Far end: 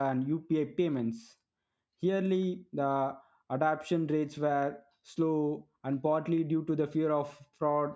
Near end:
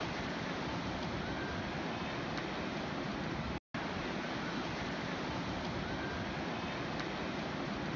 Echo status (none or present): none